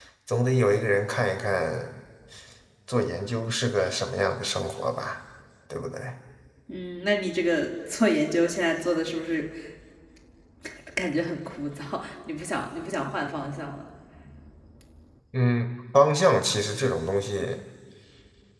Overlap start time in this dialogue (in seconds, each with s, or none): none